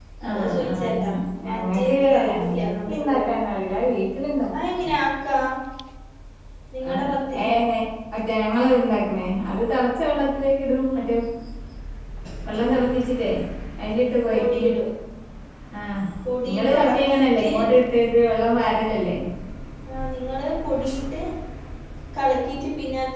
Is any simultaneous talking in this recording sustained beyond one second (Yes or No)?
Yes